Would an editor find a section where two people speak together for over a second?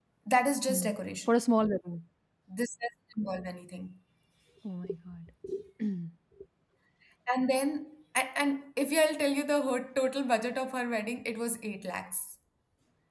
No

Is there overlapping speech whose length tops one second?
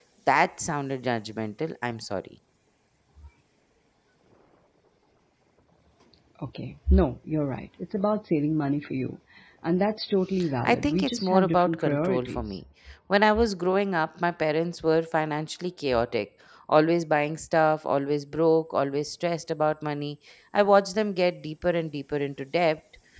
Yes, from 10.6 s

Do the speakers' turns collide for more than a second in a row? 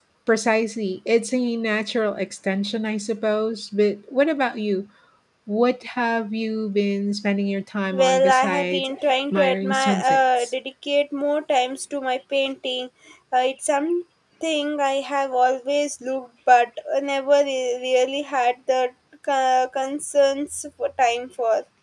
Yes, from 7.9 s

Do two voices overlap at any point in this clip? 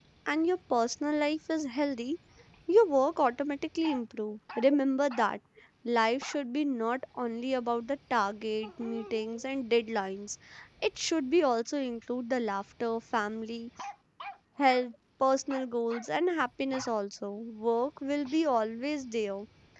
No

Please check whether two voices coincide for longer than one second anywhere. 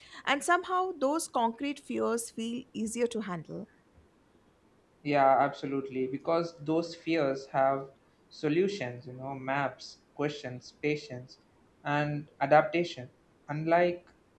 No

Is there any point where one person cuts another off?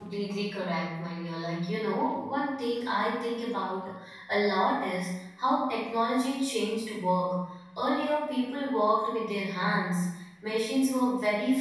No

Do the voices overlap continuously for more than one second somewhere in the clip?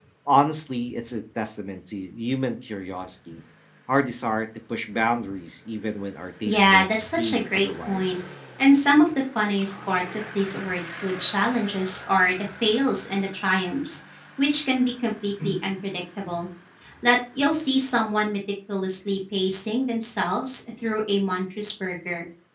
Yes, from 6.5 s

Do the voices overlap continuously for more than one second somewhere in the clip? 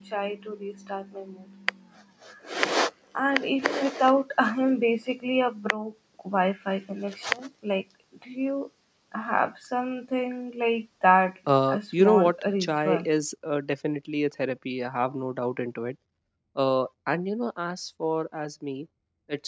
Yes, from 11.5 s

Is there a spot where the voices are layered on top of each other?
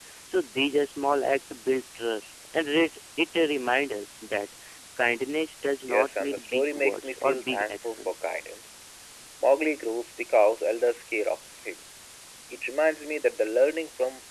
Yes, from 5.9 s

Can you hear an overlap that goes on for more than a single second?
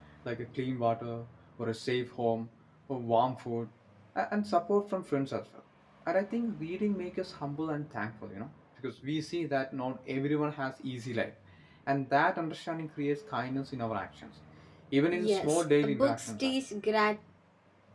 Yes, from 15.1 s

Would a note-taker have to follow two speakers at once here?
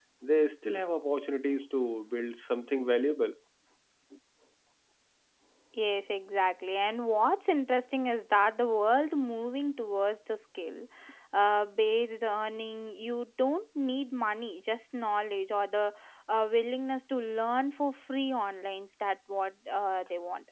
No

